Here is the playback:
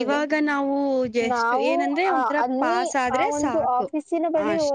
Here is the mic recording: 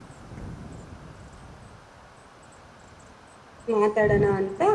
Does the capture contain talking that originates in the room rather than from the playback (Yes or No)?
Yes